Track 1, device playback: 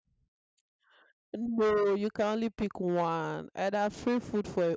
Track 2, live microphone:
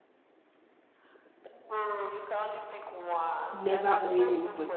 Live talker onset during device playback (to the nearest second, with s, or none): 4 s